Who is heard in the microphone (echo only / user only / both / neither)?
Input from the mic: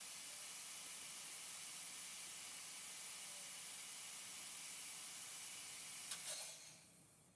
neither